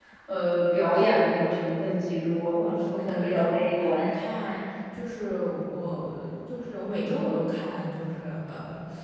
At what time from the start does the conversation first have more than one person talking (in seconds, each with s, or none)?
2.5 s